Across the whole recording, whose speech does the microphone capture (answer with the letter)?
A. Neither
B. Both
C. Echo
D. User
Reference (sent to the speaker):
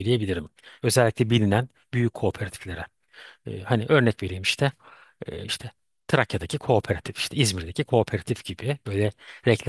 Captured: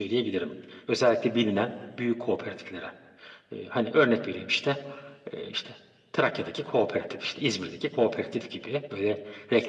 C